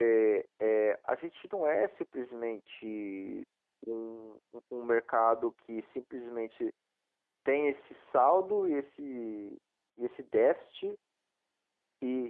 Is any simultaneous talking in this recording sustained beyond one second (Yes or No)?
No